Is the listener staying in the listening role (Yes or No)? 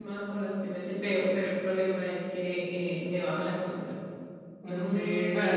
No